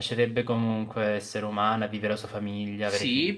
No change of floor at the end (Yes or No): No